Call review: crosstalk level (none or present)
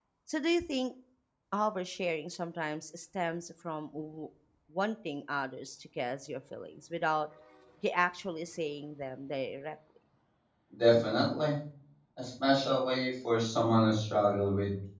none